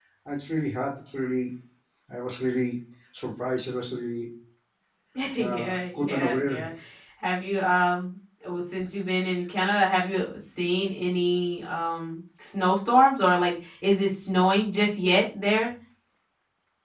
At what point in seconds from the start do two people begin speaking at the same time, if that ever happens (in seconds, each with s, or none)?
5.4 s